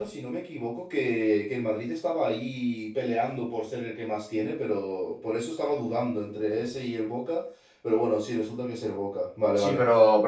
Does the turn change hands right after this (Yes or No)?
Yes